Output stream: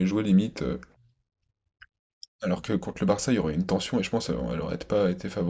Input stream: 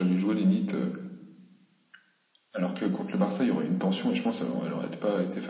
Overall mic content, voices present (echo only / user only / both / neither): echo only